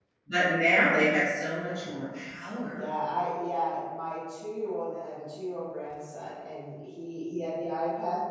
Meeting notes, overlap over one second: none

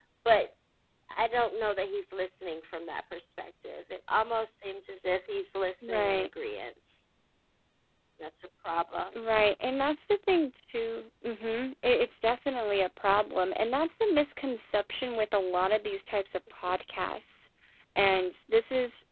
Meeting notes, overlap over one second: none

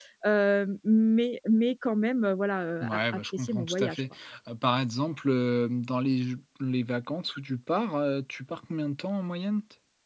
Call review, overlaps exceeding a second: present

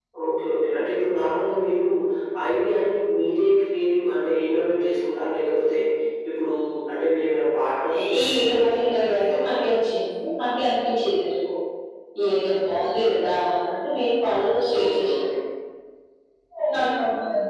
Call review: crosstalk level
present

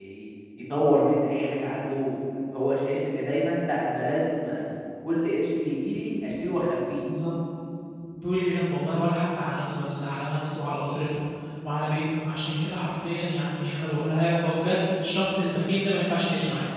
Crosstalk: none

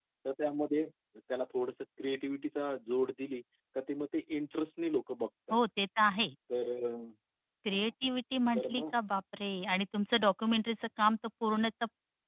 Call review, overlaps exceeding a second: none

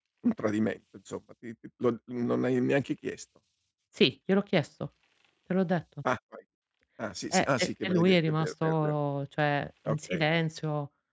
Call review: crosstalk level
present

